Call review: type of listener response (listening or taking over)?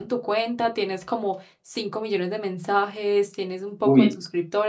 listening